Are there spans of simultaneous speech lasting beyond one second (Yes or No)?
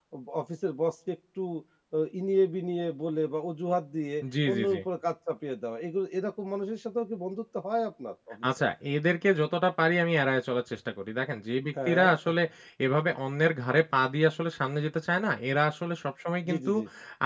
No